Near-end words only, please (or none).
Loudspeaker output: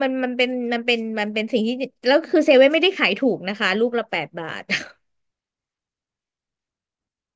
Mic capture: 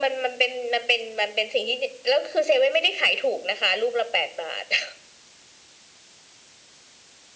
none